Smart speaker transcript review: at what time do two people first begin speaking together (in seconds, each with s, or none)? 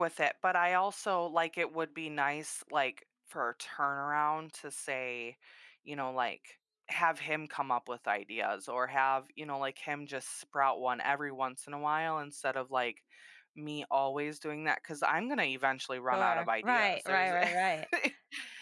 16.1 s